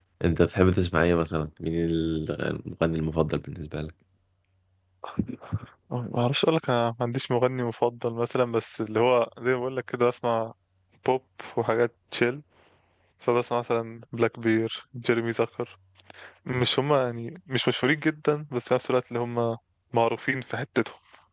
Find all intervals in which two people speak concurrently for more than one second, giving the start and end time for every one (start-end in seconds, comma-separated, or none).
none